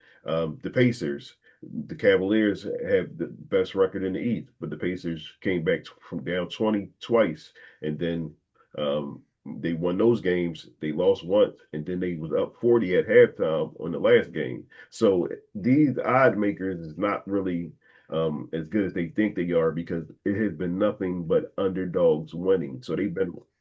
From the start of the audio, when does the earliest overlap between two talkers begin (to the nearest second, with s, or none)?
none